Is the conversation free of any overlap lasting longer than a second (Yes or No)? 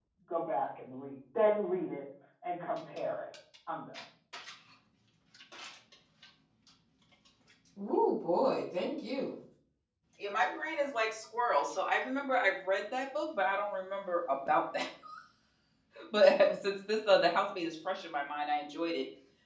Yes